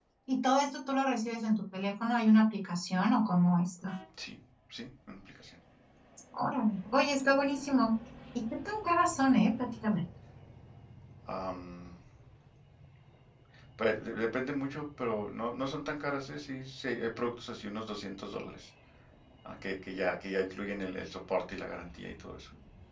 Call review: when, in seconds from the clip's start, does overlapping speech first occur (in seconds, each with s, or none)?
none